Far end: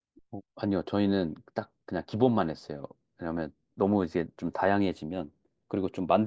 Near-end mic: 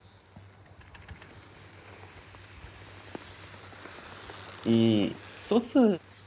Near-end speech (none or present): present